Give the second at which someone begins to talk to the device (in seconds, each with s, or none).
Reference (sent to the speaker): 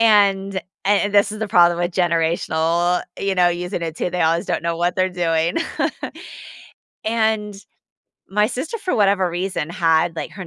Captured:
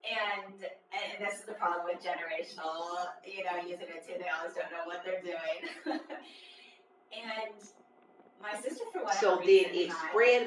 9.1 s